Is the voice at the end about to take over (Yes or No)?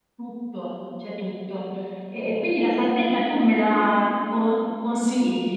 Yes